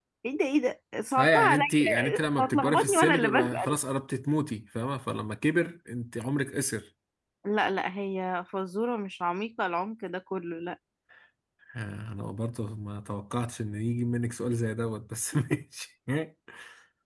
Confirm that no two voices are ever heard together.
No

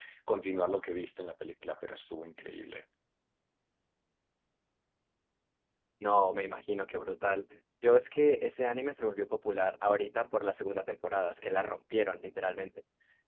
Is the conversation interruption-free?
Yes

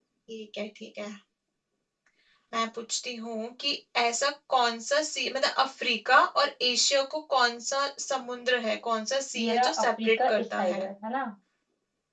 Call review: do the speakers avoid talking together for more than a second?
No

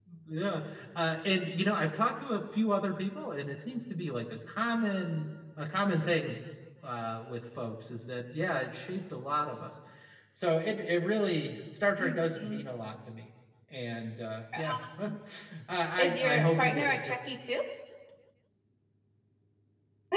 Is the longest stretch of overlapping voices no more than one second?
No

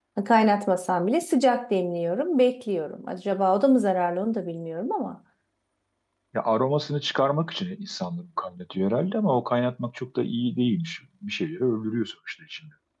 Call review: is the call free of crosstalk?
Yes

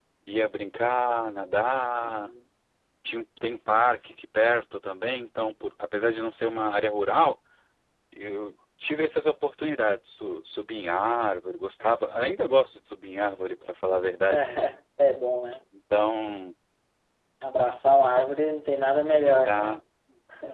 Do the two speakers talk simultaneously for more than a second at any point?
No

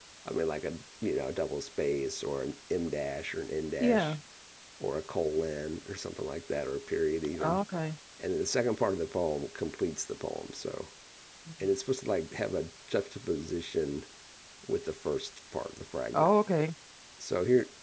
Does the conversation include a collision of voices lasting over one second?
No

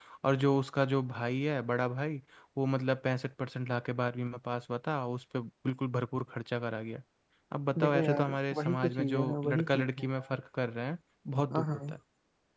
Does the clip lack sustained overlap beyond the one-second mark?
No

